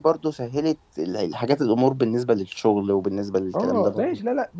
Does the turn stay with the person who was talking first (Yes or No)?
No